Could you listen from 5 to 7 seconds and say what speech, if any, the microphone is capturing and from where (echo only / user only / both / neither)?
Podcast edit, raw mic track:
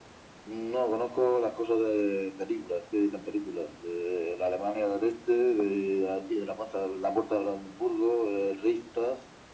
echo only